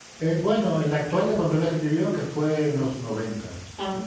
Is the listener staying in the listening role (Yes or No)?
Yes